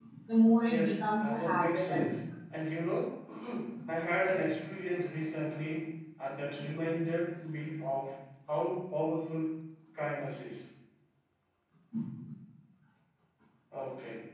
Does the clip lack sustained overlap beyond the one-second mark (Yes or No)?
No